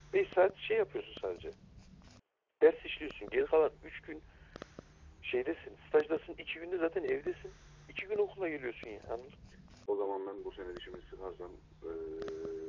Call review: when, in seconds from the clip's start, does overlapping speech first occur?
none

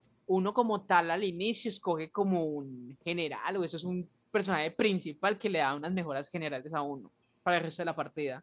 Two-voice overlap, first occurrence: none

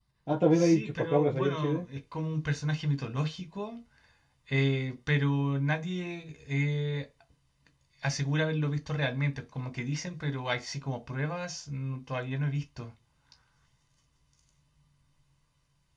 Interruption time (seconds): 1 s

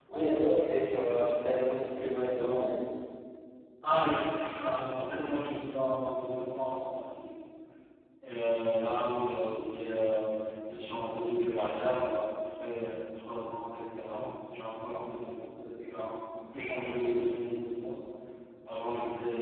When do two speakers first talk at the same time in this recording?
none

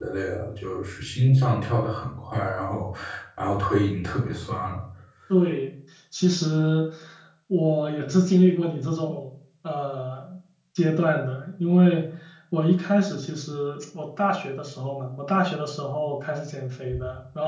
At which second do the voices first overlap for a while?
none

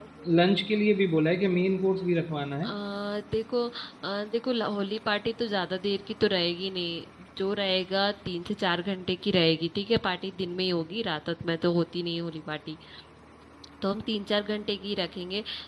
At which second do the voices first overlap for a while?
none

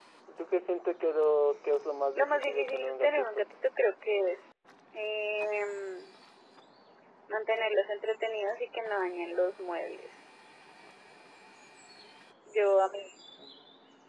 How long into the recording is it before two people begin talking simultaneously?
2 s

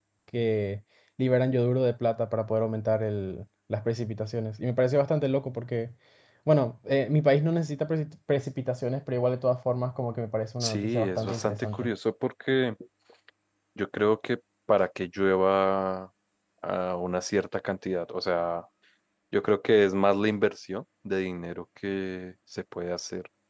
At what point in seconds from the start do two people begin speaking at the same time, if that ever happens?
11 s

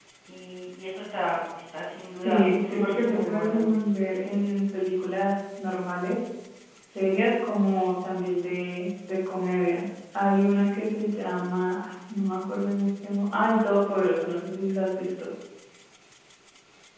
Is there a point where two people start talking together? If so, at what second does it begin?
2 s

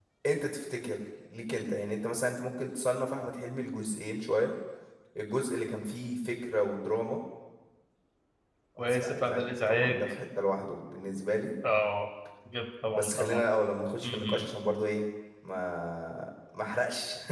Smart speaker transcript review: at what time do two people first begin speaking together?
9 s

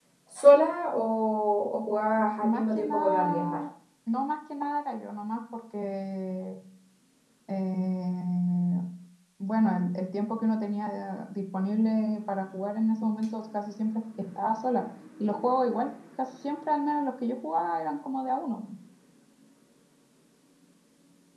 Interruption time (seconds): 2 s

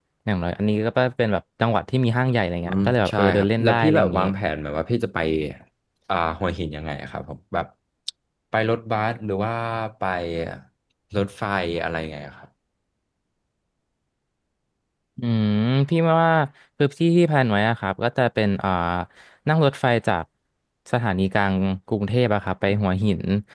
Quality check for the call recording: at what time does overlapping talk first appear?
3 s

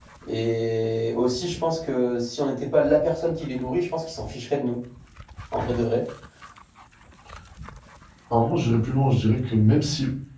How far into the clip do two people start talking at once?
none

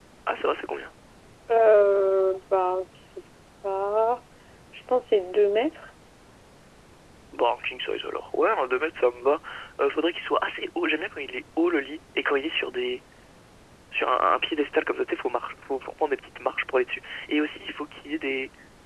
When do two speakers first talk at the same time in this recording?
none

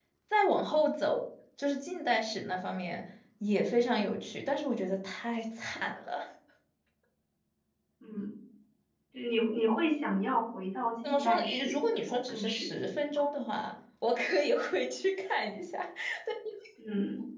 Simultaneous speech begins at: 11 s

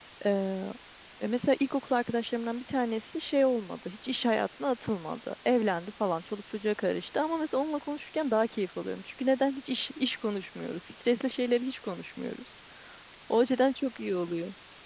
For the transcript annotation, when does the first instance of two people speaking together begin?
none

